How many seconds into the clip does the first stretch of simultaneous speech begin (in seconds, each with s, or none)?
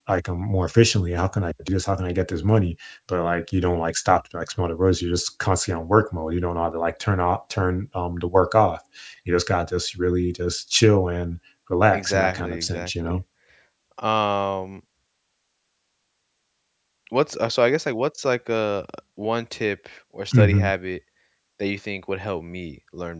11.9 s